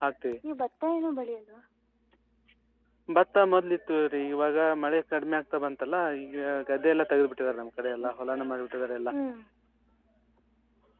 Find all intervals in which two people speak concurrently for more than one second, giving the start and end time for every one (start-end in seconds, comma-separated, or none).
none